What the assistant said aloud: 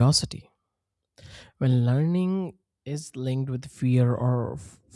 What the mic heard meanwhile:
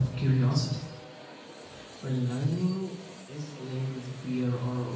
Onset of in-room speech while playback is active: none

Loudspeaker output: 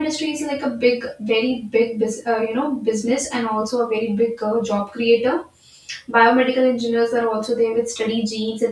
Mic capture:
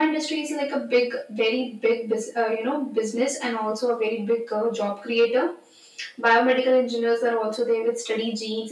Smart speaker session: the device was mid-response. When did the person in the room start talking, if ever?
none

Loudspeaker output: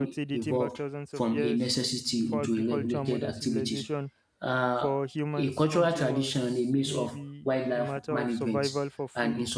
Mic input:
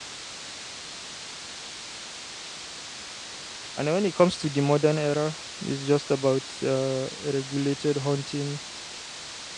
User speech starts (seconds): 4 s

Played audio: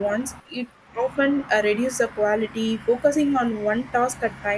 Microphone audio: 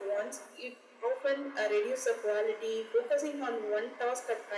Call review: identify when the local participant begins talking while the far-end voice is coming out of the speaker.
none

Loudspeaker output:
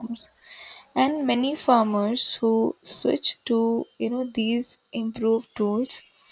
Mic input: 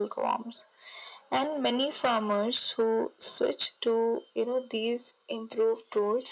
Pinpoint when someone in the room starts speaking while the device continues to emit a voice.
none

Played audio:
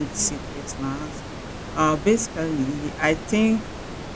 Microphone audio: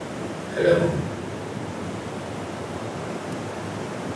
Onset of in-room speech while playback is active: 1 s

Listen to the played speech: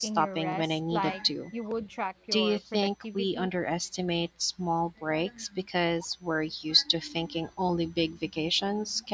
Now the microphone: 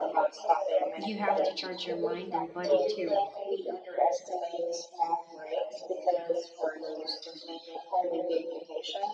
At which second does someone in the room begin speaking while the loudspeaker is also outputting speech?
1 s

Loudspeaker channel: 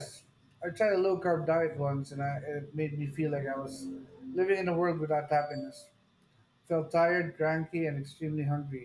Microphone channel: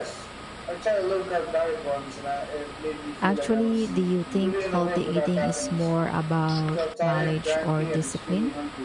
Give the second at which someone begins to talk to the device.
3 s

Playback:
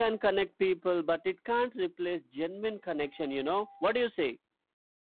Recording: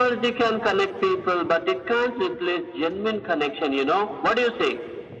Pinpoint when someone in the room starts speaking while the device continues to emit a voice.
none

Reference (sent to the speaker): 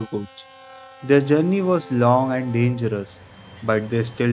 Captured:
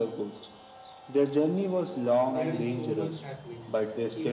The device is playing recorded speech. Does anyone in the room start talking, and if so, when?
2 s

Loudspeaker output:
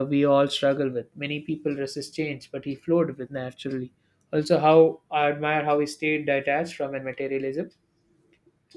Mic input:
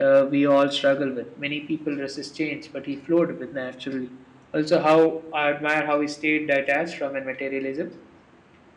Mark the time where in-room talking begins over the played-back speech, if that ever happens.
none

